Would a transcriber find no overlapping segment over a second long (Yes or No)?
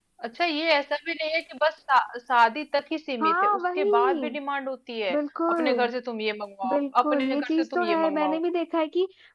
No